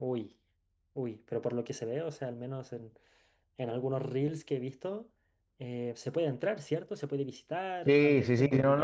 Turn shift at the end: Yes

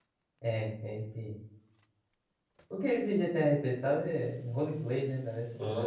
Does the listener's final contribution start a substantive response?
Yes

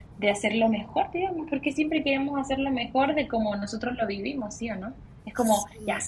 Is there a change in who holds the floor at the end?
No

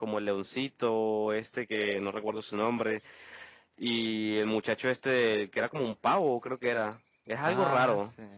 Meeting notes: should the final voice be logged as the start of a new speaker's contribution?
Yes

